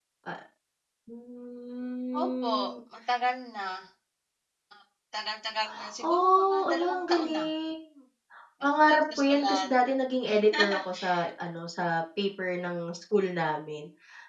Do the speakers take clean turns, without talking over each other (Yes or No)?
No